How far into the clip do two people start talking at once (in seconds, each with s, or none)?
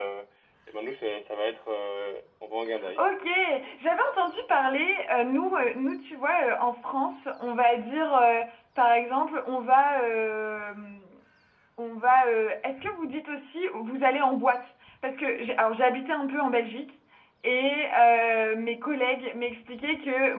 none